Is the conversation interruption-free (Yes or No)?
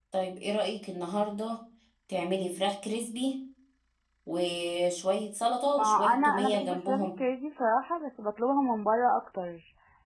No